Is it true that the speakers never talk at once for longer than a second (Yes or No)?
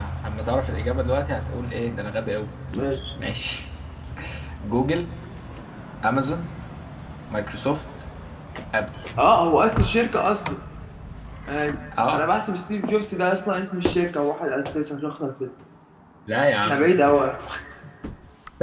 Yes